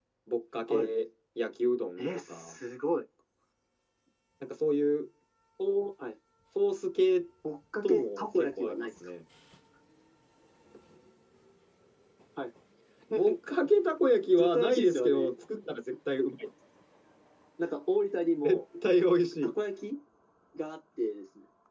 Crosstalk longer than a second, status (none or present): present